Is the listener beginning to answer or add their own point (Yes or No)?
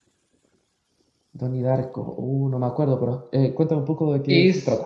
Yes